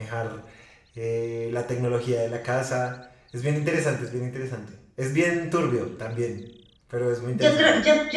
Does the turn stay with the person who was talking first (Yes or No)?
No